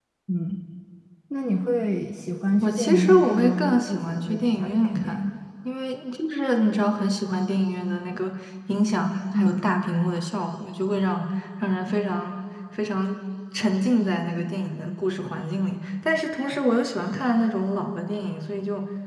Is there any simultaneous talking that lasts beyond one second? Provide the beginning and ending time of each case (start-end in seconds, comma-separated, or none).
2.6-5.3